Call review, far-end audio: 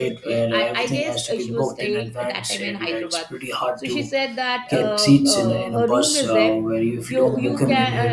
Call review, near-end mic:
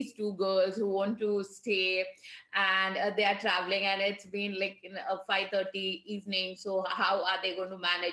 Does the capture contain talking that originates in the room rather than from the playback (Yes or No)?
Yes